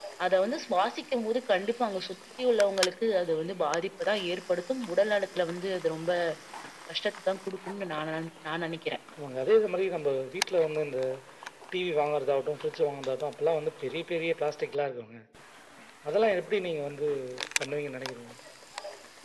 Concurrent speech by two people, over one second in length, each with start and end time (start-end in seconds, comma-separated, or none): none